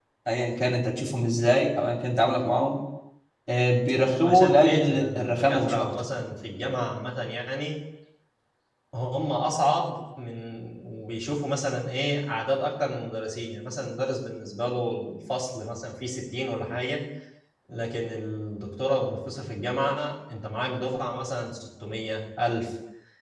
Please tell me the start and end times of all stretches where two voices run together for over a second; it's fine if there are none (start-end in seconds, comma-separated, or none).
4.2-5.9